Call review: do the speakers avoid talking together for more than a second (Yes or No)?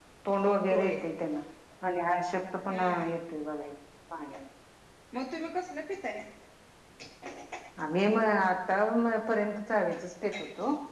Yes